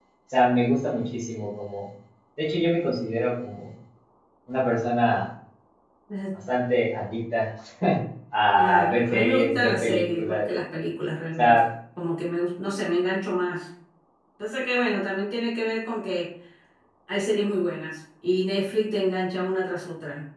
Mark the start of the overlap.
8.6 s

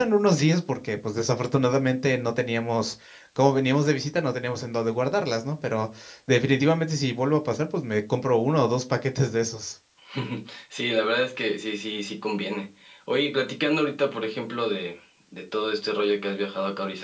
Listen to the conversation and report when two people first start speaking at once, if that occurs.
none

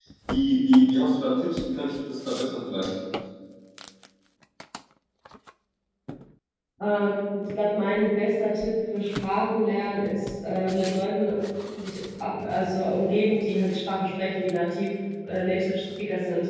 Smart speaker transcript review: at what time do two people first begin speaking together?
none

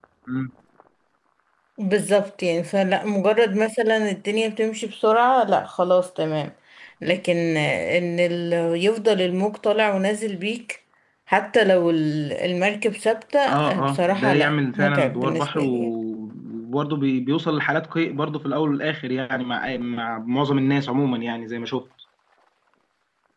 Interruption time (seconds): 13.4 s

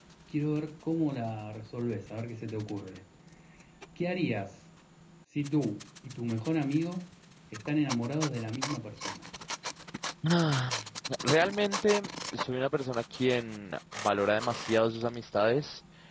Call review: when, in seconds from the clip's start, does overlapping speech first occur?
none

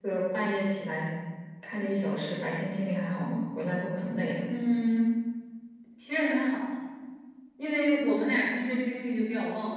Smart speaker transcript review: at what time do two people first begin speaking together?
none

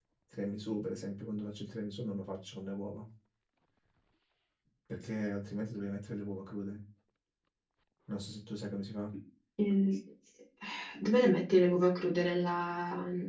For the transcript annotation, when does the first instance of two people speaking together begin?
none

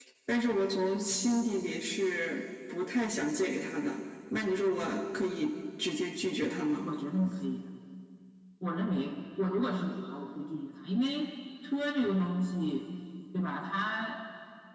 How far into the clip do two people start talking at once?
none

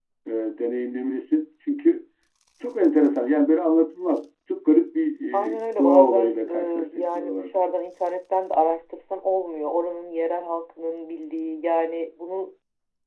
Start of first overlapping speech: 5.3 s

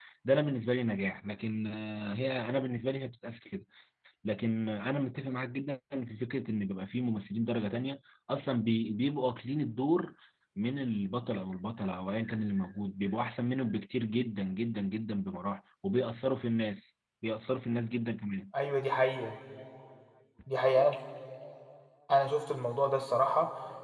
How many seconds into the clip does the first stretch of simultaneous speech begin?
none

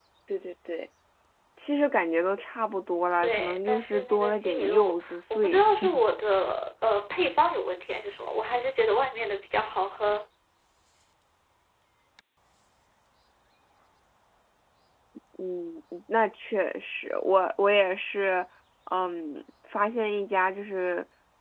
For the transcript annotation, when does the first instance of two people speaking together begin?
3.2 s

